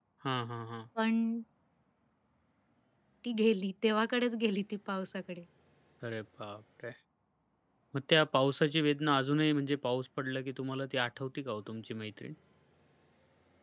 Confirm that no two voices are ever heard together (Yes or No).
Yes